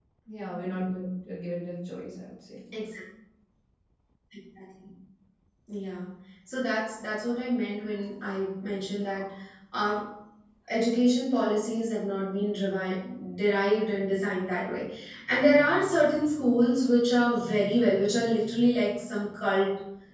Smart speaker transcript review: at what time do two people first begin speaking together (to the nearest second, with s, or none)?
none